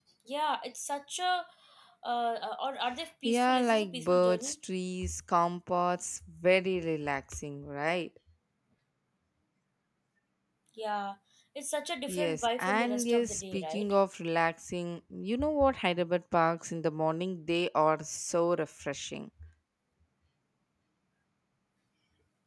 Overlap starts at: 3.2 s

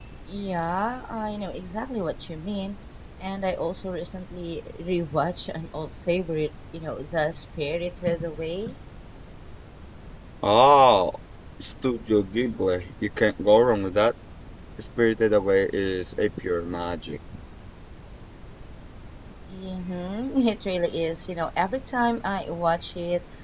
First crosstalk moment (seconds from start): none

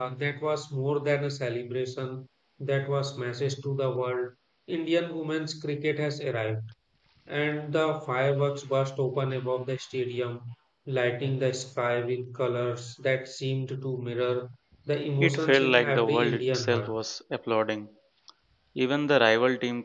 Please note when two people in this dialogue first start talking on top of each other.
15.2 s

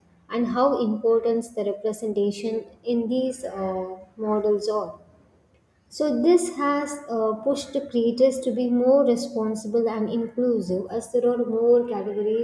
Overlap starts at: none

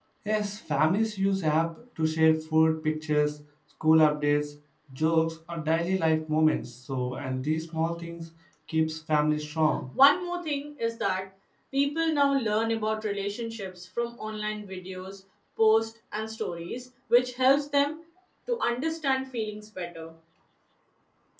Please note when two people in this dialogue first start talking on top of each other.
none

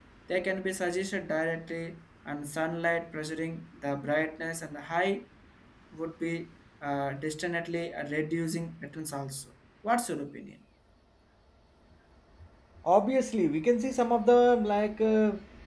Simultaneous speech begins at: none

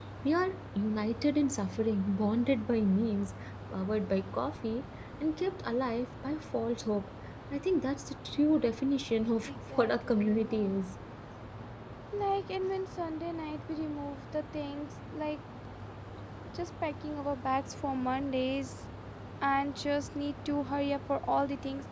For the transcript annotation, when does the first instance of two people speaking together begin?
9.4 s

